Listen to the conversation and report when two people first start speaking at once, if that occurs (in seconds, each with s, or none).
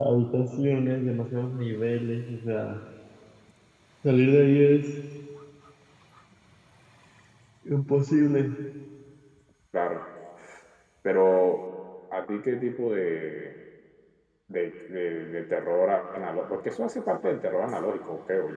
none